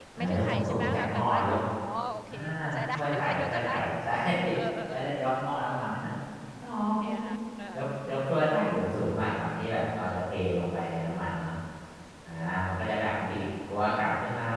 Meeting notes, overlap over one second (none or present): present